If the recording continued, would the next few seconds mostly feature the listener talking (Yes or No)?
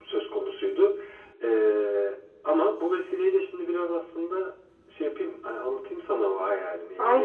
Yes